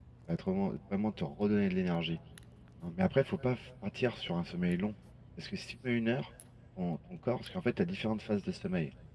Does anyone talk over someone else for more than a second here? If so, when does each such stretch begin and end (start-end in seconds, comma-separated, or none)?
none